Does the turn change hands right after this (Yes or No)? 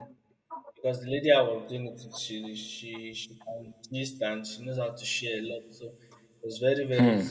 Yes